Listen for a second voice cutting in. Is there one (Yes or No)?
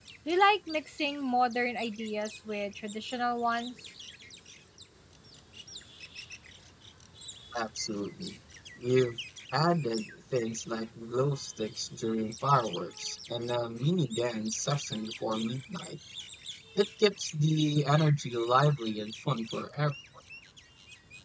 No